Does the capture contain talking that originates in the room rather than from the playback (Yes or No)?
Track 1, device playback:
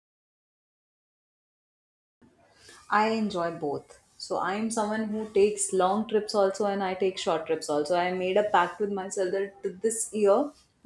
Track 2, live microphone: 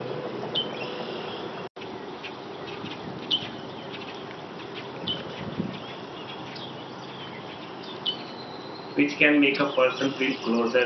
Yes